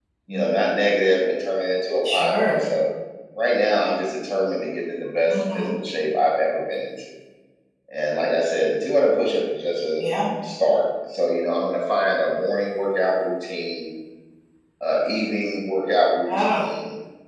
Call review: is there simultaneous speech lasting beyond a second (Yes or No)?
No